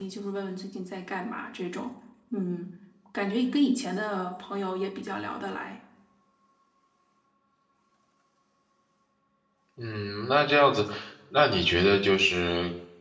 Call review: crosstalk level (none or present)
none